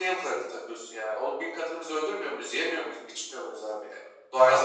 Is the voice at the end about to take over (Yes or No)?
No